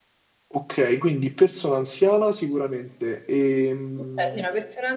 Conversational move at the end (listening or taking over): taking over